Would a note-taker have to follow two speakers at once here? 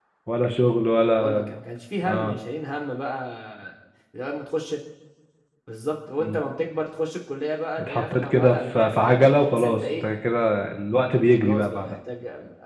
Yes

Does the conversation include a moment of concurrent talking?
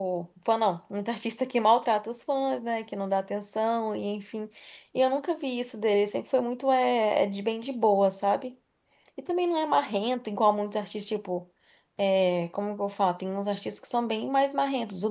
No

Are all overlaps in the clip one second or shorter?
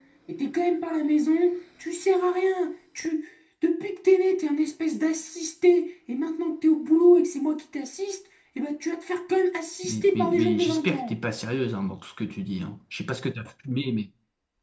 No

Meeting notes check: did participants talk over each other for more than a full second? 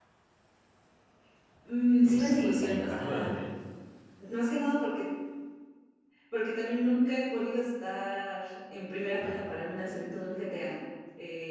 Yes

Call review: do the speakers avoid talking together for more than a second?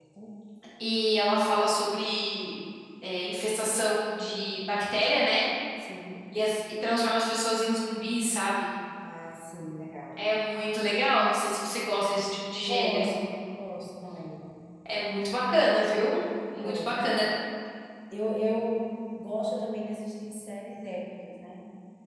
Yes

